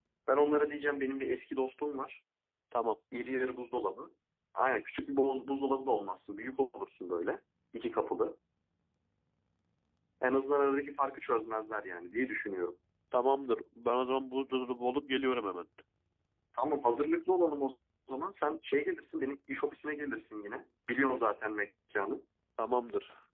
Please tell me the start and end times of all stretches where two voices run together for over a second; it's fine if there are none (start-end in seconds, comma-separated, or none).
none